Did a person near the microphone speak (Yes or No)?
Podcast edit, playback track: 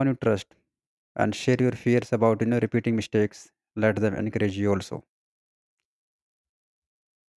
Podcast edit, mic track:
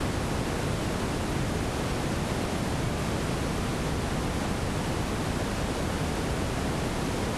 No